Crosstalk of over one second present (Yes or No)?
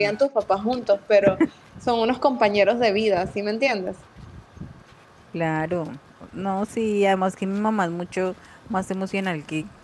No